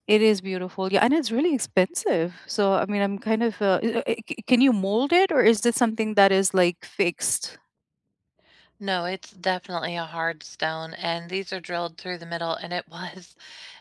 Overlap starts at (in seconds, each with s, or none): none